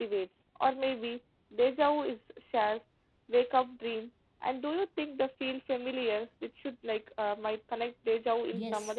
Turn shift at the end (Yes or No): Yes